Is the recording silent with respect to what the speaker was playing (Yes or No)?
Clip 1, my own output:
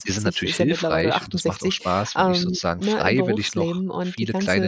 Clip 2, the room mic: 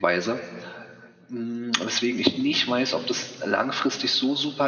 Yes